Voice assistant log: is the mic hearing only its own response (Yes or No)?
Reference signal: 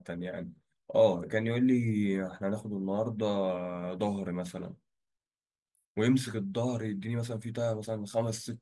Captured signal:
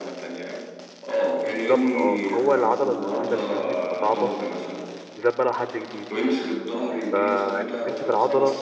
No